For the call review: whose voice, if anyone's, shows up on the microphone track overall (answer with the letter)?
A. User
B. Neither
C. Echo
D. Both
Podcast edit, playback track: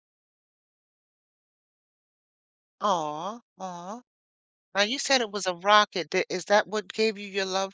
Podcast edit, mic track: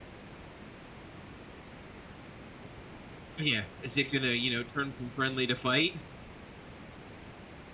A